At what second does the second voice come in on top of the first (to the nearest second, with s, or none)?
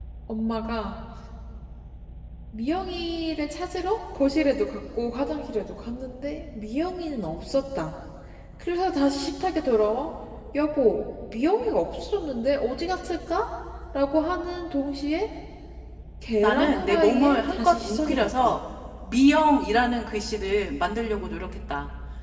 16 s